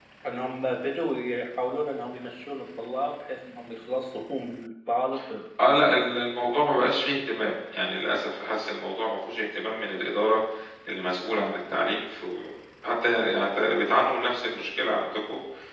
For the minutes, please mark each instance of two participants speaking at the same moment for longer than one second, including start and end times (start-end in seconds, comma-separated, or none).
none